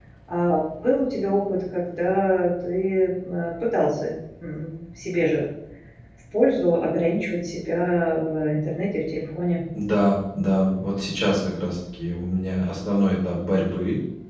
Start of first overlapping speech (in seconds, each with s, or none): none